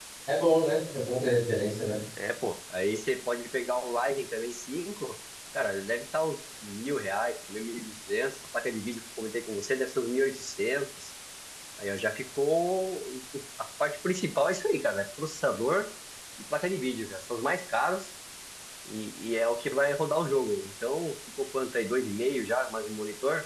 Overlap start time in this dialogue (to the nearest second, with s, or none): none